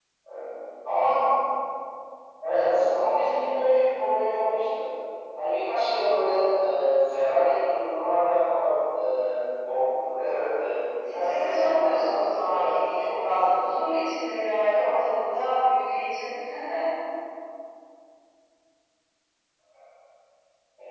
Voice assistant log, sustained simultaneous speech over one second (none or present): present